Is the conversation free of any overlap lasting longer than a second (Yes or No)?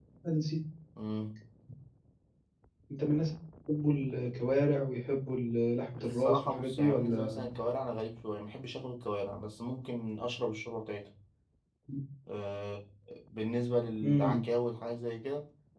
No